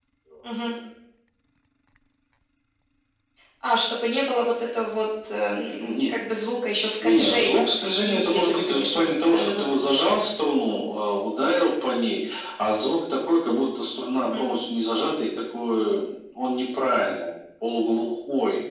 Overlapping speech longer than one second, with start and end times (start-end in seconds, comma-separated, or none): 7.0-10.2